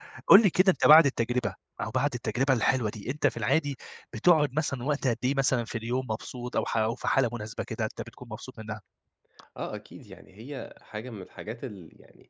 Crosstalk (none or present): none